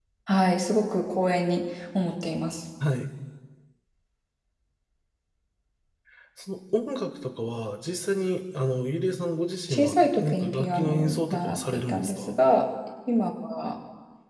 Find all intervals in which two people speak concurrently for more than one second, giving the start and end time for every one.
9.7-12.3

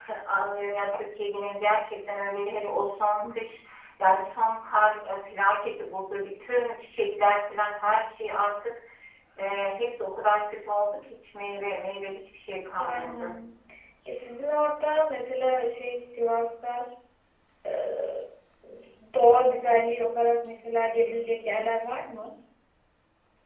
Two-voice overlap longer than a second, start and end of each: none

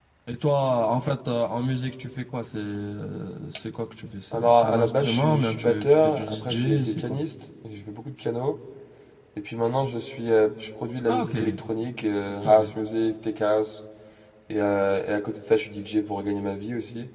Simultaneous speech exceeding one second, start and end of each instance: 4.3-7.2

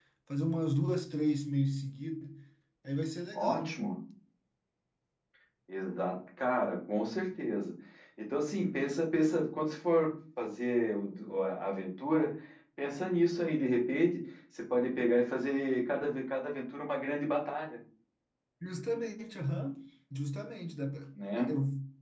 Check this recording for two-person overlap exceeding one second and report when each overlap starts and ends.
none

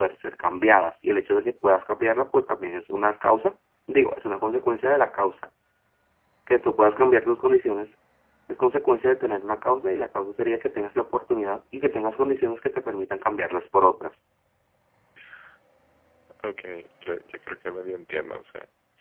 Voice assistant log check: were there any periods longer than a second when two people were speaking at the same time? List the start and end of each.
none

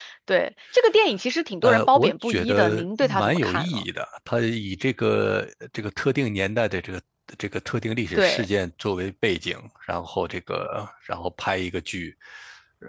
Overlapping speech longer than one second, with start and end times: 1.6-3.8

